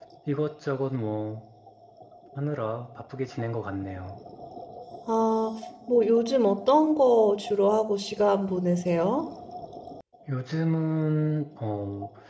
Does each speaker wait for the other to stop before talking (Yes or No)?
Yes